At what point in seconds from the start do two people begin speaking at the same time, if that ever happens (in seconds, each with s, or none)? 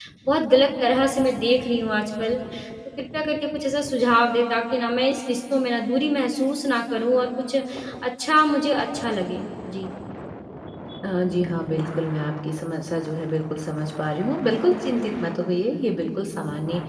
none